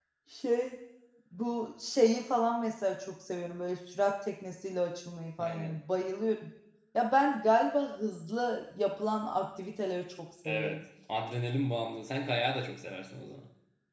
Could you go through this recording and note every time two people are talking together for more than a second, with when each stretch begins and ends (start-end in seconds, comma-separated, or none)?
none